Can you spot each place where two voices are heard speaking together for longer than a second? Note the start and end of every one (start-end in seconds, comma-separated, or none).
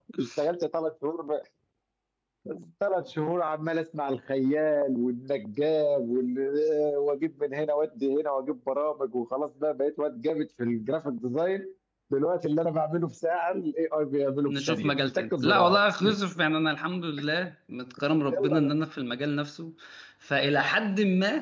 14.5-15.8